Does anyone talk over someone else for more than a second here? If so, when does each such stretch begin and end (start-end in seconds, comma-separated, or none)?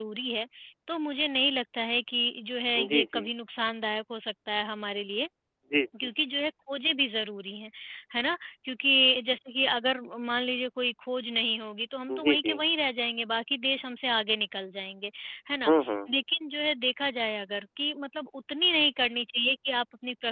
none